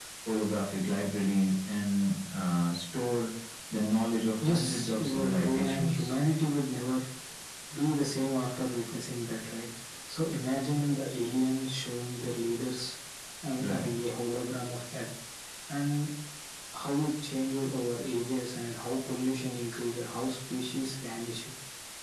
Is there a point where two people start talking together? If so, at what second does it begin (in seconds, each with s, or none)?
4.4 s